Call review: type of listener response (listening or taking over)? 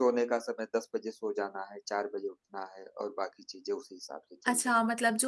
taking over